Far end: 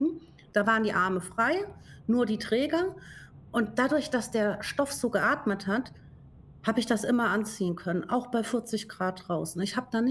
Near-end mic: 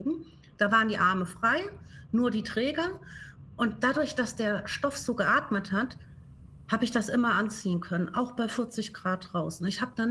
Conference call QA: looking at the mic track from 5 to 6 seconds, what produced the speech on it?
echo only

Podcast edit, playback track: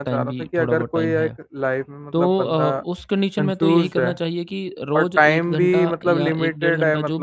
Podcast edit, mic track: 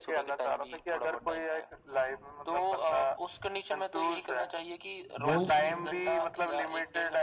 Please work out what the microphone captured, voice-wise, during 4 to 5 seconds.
echo only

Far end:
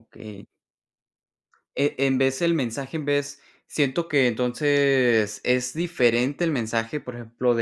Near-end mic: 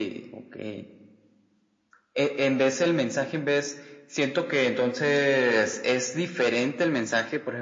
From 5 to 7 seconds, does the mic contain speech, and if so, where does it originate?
echo only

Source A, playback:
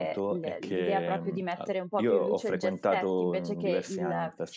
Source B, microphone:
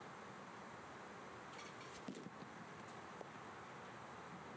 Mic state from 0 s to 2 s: neither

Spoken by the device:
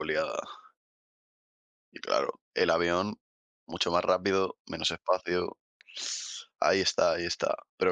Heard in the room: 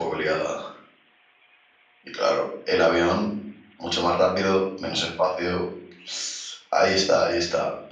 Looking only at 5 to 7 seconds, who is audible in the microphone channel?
echo only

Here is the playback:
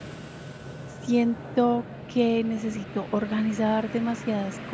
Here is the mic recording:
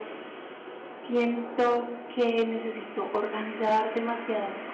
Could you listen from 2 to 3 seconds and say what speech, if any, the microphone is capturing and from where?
echo only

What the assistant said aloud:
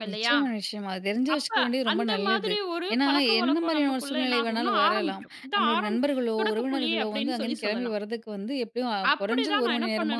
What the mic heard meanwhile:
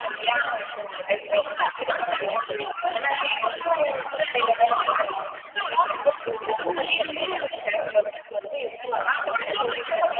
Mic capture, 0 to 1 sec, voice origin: echo only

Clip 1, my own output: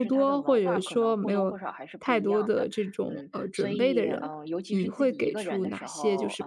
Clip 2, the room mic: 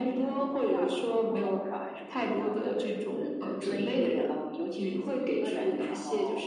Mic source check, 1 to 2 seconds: echo only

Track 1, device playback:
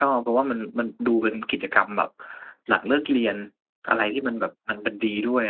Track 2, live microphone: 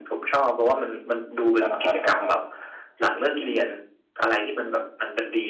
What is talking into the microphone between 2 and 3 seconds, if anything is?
both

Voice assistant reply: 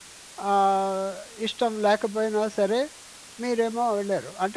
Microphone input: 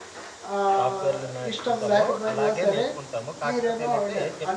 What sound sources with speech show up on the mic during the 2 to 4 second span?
both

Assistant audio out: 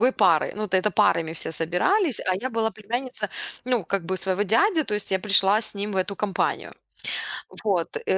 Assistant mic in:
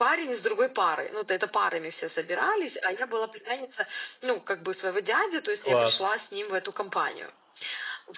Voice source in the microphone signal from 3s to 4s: echo only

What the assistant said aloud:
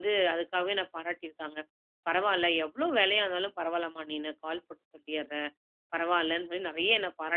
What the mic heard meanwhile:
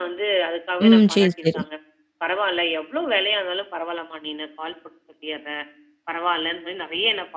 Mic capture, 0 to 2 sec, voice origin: both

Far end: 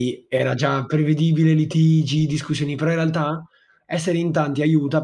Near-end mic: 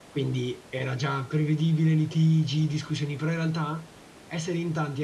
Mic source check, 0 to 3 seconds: echo only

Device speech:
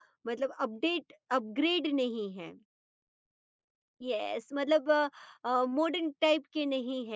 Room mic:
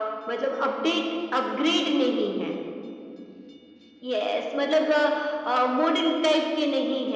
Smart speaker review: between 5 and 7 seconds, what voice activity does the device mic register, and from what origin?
echo only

